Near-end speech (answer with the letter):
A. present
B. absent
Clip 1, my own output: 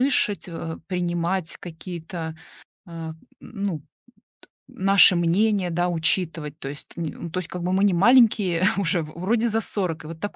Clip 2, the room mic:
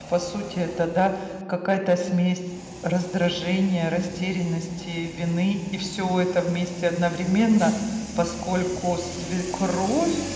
A